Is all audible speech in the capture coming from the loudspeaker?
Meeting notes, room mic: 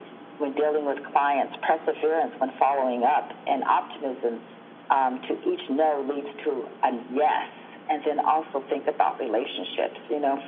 Yes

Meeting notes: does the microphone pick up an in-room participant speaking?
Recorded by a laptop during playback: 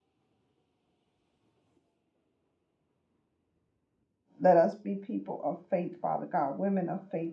Yes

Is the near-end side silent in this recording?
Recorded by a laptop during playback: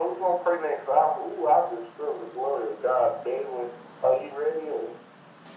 Yes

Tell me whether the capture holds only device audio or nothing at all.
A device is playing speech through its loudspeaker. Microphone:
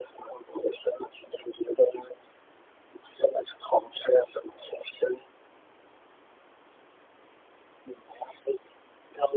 Yes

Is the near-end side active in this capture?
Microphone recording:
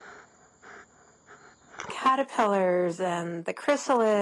Yes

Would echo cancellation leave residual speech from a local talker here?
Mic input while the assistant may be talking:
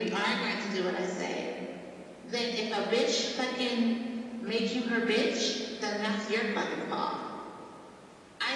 No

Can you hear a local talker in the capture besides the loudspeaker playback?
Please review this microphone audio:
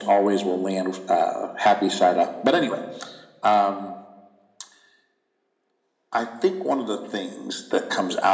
No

